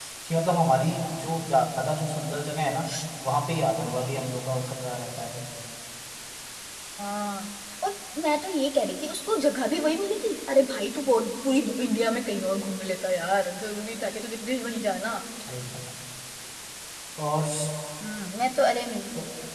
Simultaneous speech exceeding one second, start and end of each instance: none

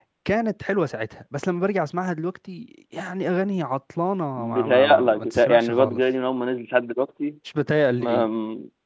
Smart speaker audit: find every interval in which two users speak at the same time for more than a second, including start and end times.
4.4-6.0

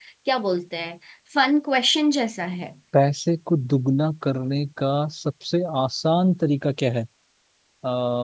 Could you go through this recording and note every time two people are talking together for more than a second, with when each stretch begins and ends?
none

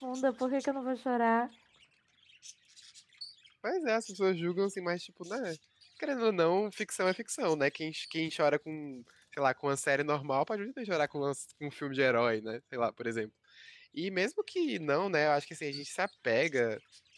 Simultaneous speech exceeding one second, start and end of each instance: none

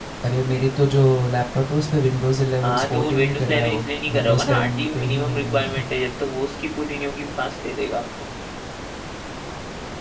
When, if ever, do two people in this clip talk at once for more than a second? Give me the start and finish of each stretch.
2.6-5.6

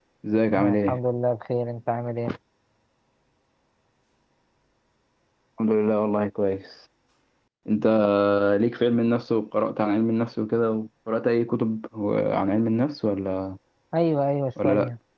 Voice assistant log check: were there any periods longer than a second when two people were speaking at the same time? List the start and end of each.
none

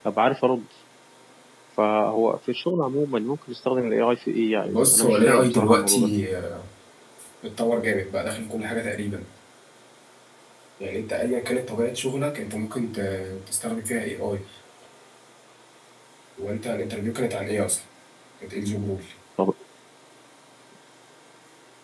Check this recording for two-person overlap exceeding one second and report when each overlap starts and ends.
4.6-6.1

